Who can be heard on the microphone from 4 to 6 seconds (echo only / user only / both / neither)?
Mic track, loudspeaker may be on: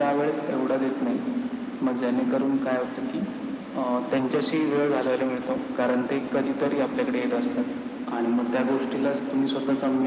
echo only